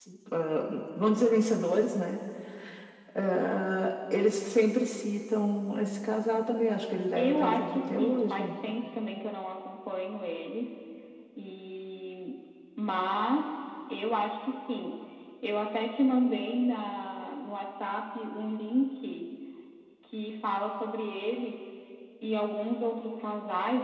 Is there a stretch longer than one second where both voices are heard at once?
Yes, from 7.2 s

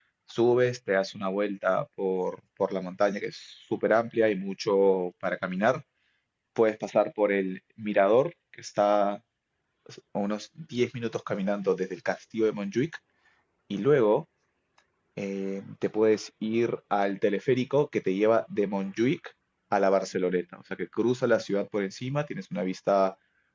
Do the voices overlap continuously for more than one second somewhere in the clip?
No

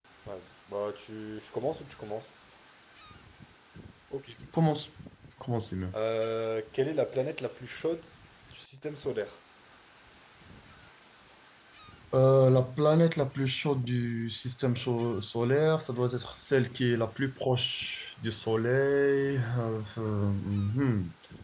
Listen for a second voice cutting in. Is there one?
No

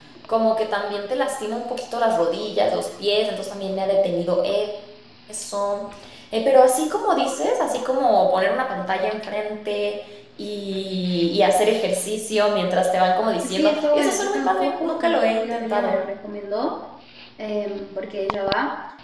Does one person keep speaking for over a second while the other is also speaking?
Yes, from 13.4 s

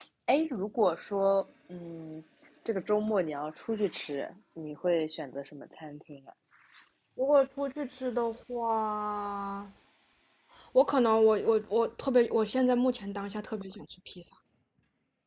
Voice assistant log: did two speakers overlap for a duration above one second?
No

